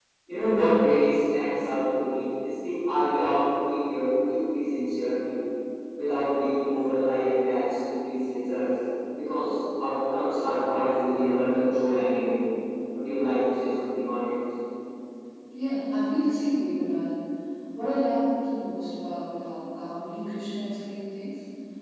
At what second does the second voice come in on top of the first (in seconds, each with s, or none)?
none